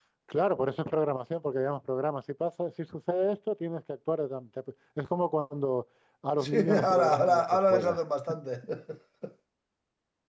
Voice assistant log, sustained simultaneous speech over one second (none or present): present